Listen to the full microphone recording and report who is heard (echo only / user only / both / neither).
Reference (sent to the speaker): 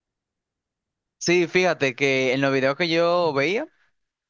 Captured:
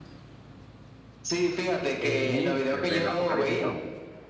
both